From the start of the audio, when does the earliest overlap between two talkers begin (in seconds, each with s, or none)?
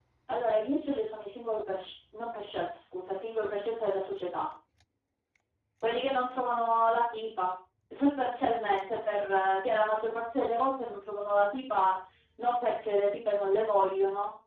none